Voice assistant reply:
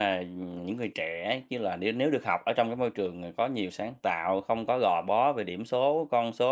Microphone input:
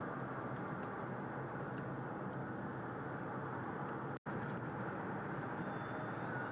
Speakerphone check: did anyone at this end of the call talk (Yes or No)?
No